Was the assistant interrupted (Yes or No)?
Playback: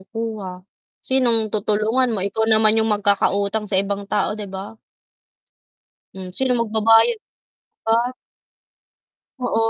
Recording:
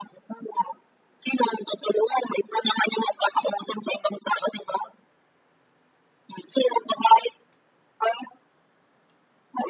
No